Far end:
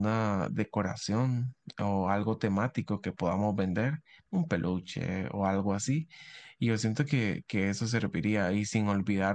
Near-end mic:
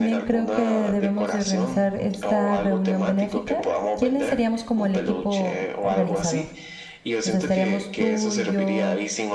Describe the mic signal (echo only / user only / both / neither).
both